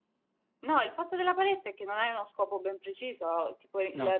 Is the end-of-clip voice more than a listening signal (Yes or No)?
No